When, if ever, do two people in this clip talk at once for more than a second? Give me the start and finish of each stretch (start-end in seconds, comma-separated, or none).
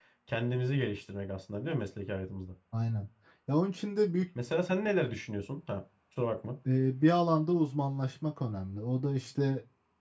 none